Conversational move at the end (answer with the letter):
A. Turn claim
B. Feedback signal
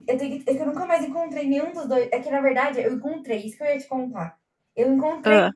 B